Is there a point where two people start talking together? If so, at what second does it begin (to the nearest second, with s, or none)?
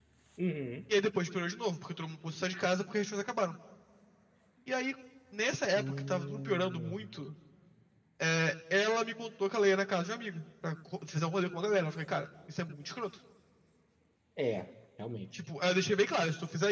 6 s